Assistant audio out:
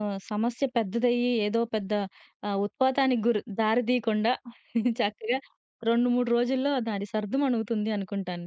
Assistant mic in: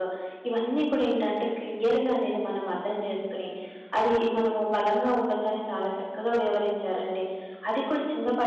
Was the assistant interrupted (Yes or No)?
Yes